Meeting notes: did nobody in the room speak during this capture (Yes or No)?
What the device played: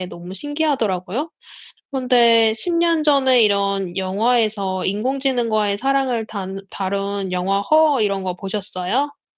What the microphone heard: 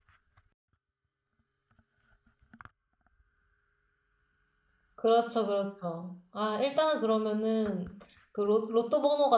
No